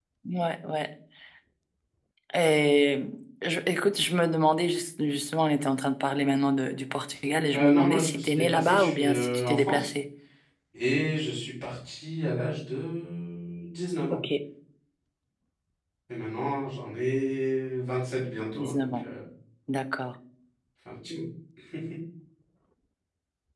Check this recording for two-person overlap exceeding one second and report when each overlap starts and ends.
7.5-9.9

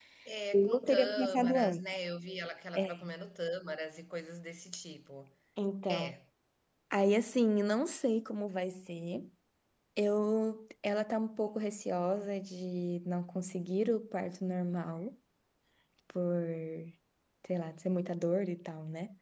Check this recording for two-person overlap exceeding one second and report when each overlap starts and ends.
0.5-1.8

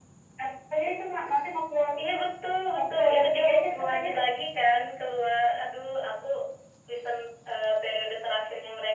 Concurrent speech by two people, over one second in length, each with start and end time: 2.7-4.1

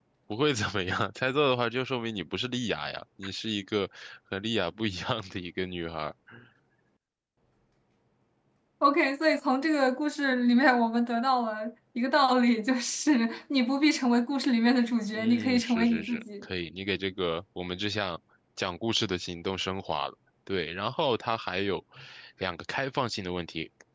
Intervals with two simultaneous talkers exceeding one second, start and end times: 15.1-16.4

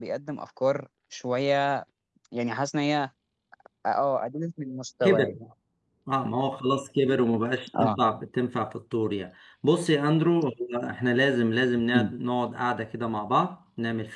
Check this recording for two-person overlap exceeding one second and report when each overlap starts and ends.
none

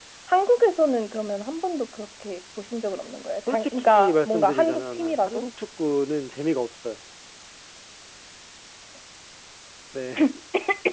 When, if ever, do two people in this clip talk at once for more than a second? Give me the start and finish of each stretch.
3.5-5.4

